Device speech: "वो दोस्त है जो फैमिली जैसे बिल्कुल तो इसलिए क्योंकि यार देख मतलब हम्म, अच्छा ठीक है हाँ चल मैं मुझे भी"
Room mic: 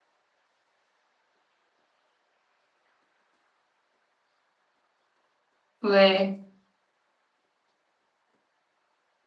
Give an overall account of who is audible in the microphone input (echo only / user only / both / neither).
user only